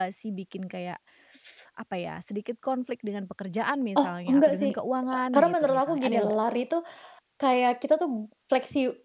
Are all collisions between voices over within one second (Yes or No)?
No